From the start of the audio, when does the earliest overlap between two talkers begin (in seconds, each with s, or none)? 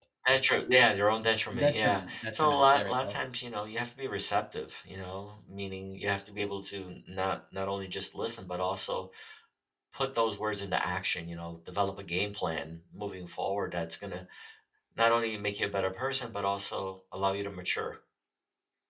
1.5 s